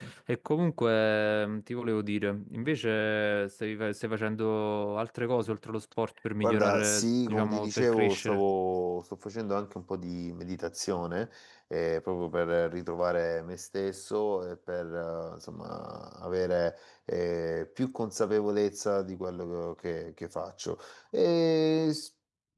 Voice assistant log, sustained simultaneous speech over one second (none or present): present